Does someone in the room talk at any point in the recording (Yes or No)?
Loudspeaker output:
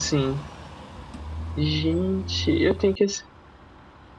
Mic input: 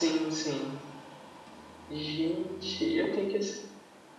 No